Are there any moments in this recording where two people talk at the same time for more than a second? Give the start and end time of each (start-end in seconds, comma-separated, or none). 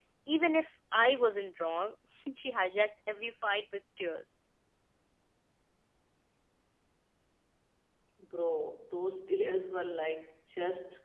none